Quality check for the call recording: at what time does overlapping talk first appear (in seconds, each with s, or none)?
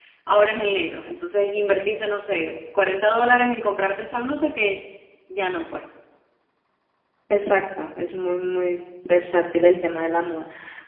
none